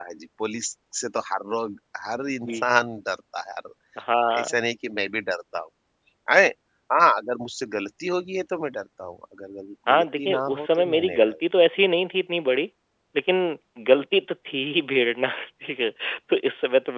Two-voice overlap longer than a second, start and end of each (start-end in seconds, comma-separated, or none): 9.9-11.3